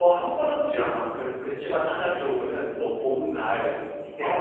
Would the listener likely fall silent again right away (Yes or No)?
No